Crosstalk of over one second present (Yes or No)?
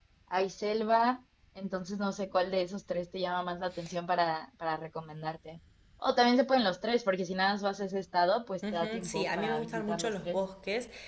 Yes